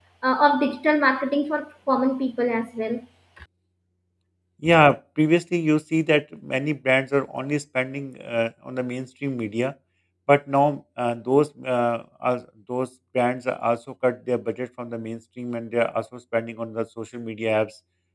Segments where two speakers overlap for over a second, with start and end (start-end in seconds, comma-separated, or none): none